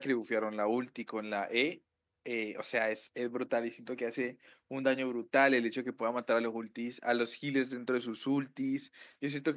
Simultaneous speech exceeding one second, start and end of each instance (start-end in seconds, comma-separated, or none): none